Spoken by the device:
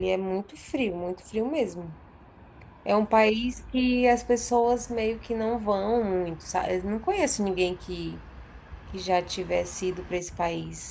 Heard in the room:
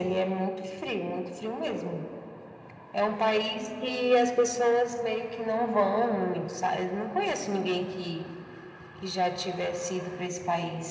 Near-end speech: none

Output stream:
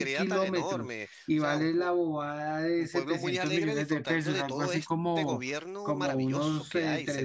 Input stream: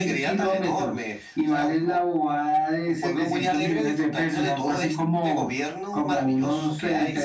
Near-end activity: none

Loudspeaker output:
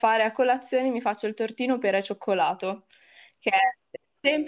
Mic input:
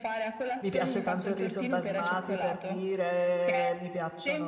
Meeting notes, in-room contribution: present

